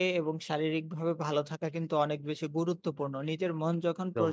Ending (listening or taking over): listening